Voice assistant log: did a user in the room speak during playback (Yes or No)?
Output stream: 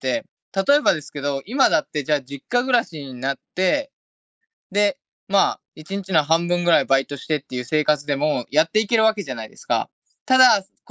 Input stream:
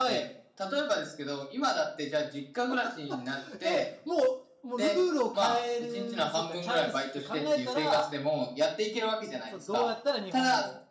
Yes